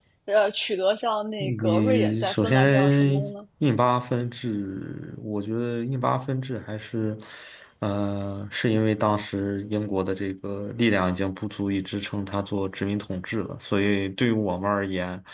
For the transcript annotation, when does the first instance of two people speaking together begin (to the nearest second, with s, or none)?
1 s